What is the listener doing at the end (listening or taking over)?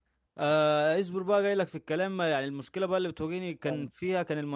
listening